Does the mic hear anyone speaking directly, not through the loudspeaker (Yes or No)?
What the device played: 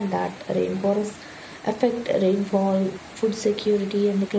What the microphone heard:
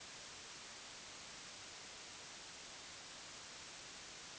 No